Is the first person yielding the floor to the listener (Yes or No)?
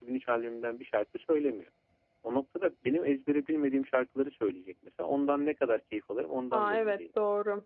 Yes